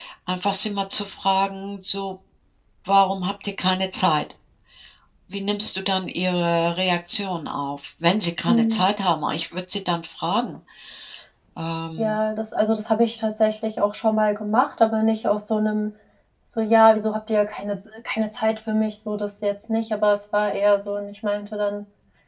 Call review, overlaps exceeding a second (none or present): none